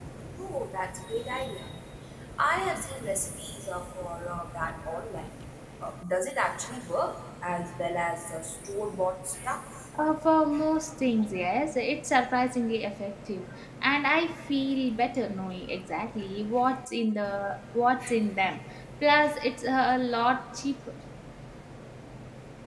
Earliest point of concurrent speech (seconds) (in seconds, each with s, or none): none